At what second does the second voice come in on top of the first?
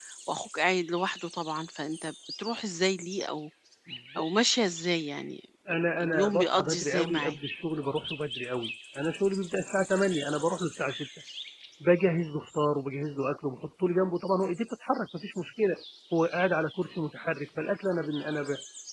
6.0 s

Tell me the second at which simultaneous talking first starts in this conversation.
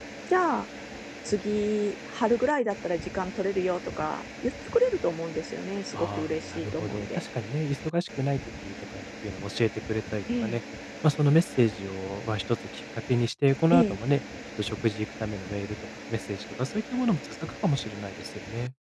5.9 s

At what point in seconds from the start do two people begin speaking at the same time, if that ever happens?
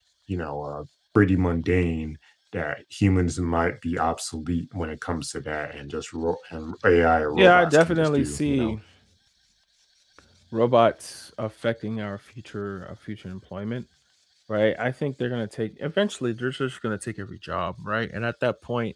7.3 s

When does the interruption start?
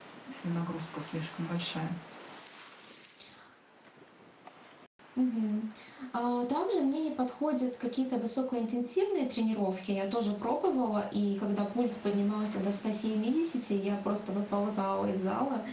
none

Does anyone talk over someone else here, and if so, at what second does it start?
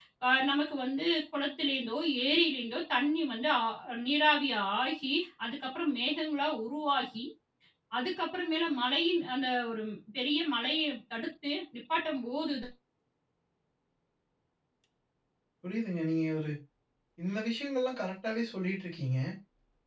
none

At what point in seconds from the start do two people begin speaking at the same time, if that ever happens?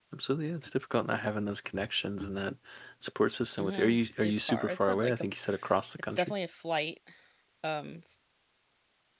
3.6 s

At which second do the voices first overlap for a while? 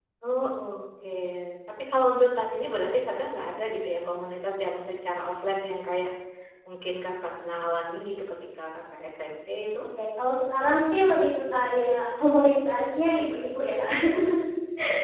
none

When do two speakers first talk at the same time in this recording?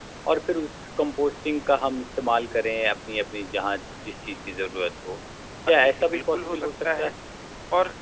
5.7 s

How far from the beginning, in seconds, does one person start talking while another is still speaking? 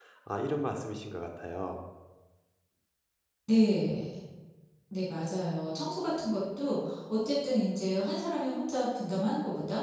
none

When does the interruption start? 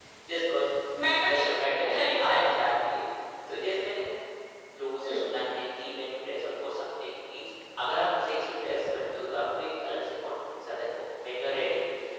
1.3 s

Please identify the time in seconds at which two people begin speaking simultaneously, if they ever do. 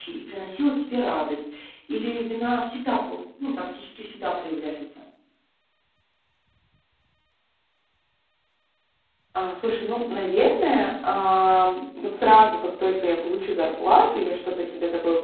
none

